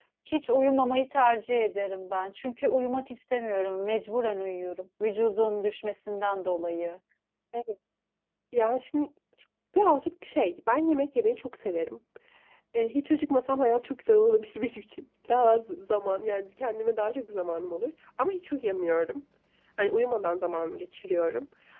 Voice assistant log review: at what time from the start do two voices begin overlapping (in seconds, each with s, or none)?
none